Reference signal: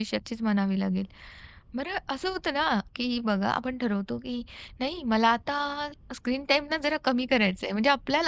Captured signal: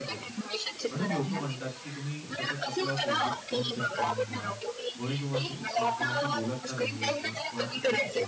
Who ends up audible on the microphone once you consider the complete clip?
both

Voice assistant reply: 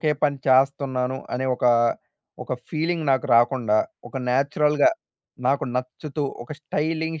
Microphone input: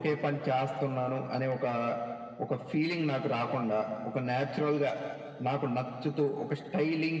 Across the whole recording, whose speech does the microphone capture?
echo only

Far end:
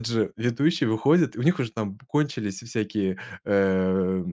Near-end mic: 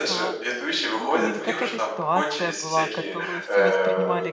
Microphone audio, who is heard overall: both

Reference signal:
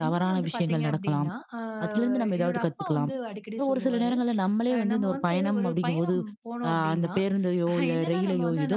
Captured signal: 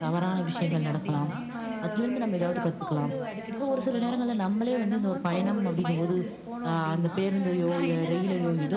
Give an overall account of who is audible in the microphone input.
both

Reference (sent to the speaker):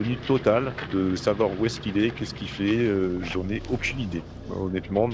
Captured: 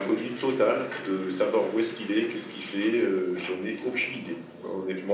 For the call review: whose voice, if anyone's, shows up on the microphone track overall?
echo only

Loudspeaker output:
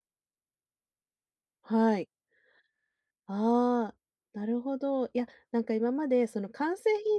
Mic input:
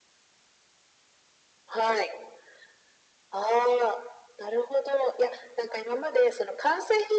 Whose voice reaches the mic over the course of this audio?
echo only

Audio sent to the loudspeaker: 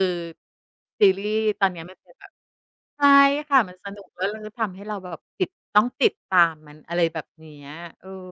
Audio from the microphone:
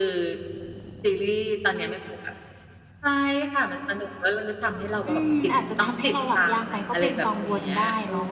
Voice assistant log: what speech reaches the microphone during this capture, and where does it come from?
both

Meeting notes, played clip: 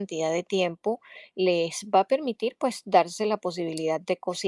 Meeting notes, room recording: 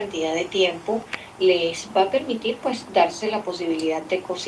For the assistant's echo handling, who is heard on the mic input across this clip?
echo only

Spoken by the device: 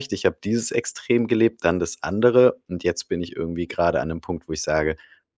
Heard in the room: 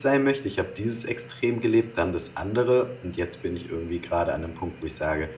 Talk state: echo only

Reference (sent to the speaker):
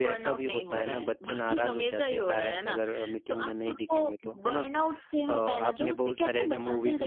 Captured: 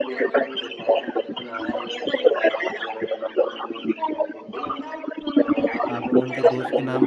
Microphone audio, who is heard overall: both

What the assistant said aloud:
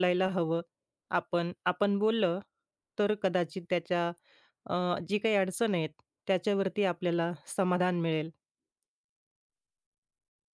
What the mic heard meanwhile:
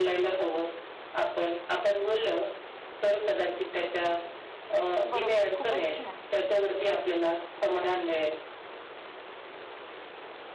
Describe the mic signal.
both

